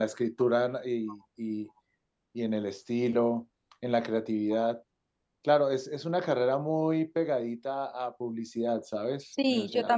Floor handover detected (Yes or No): Yes